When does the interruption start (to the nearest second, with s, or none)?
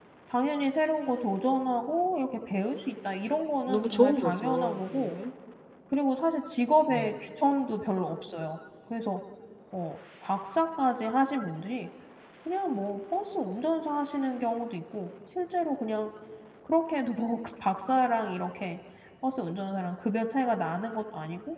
4 s